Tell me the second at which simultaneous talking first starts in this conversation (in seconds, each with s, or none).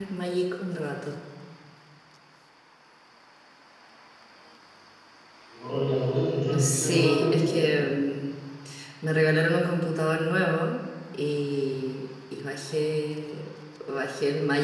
5.7 s